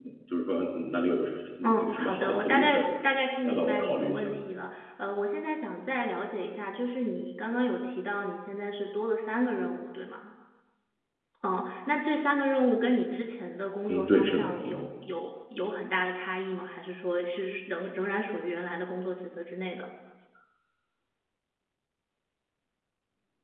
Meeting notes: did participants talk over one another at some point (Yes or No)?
Yes